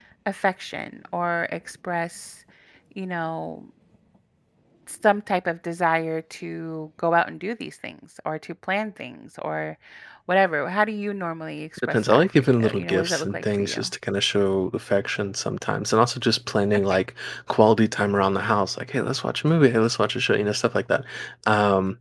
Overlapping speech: Yes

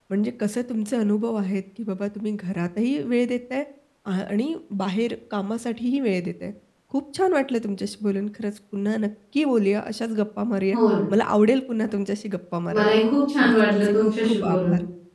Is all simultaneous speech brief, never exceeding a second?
No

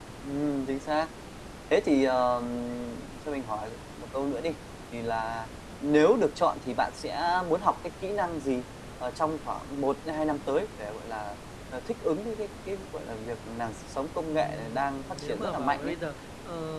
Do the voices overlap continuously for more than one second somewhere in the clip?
Yes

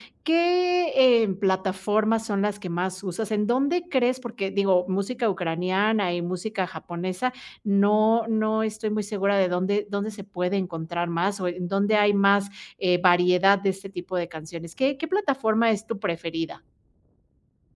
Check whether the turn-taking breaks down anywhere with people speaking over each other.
No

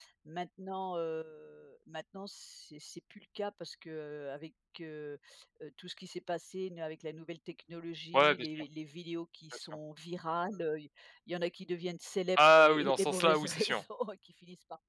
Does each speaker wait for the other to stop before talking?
No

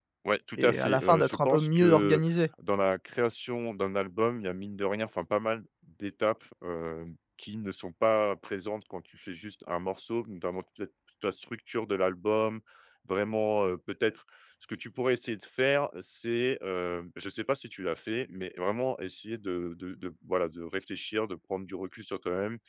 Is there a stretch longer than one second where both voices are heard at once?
Yes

